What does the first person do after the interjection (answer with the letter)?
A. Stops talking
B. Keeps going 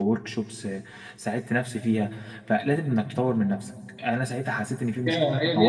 A